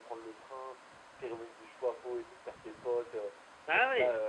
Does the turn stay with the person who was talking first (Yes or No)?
Yes